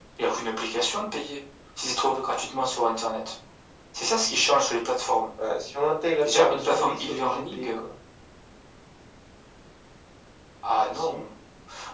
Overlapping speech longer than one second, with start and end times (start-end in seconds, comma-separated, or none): 6.2-7.8